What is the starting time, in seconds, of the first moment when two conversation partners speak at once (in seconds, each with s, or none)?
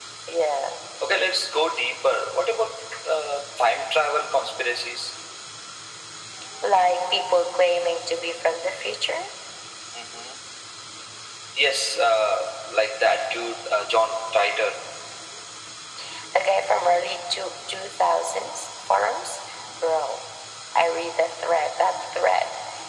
none